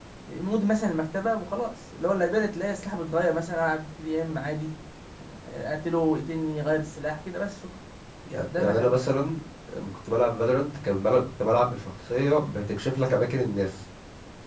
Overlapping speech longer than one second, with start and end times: none

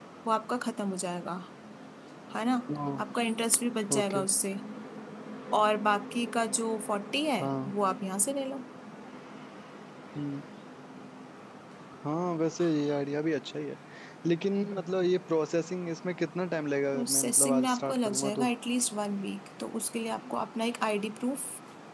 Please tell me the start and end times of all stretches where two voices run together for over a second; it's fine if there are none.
16.9-18.5

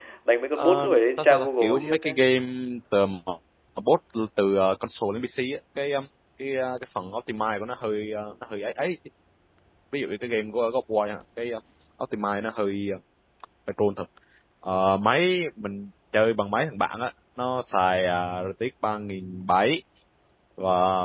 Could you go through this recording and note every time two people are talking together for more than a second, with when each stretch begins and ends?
0.6-2.1

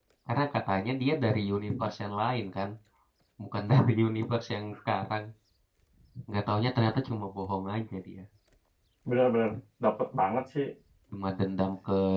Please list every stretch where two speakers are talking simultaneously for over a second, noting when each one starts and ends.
none

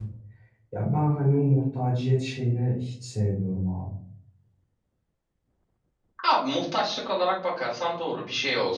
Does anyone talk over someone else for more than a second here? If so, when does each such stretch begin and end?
none

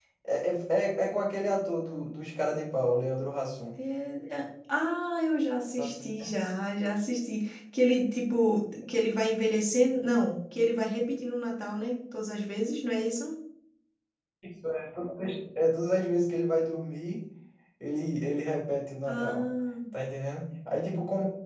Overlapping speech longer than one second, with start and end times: none

